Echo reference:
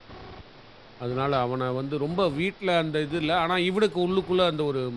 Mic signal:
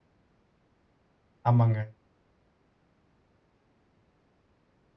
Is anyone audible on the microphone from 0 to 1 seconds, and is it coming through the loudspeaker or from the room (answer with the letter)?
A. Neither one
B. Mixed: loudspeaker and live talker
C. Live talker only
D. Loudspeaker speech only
A